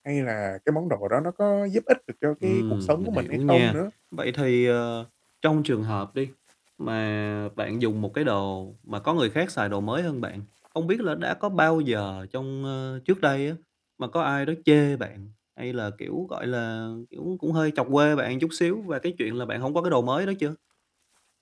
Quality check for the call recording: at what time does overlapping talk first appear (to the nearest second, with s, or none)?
2 s